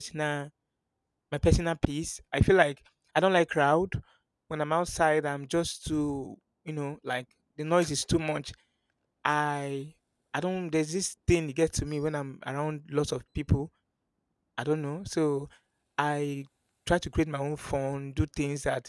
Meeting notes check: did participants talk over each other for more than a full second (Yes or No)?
No